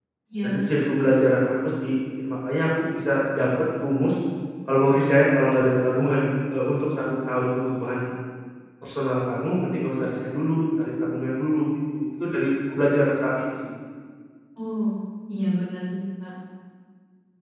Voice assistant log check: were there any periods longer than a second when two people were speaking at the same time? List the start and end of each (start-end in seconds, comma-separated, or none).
none